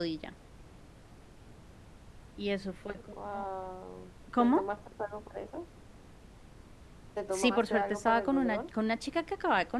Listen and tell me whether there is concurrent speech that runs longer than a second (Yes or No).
Yes